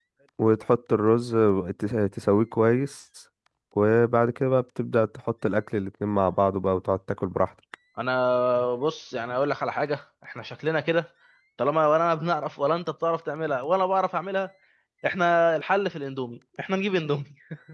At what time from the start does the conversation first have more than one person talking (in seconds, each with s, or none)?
none